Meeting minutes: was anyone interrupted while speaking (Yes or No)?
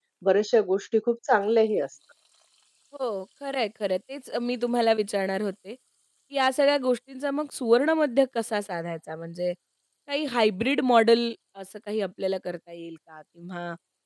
No